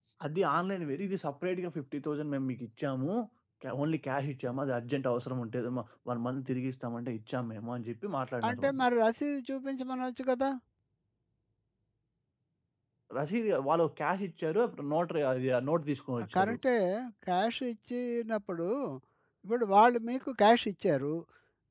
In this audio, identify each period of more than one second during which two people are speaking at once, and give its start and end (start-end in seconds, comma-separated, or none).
none